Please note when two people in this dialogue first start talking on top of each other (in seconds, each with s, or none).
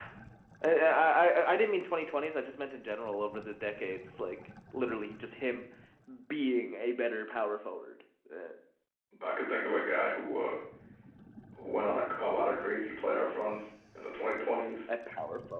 none